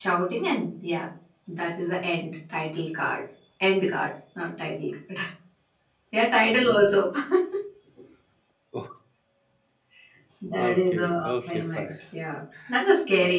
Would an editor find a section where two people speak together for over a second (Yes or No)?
Yes